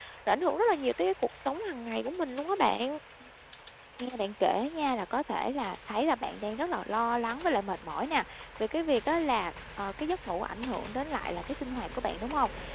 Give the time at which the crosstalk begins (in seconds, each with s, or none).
none